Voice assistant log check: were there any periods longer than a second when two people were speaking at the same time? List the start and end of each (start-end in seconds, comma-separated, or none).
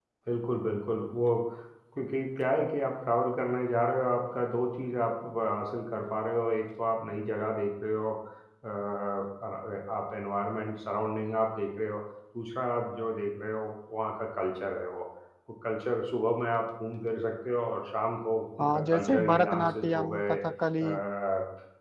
18.6-20.4